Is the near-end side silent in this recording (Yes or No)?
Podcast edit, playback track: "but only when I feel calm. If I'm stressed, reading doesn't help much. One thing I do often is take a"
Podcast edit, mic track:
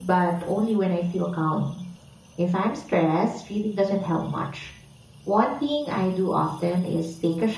Yes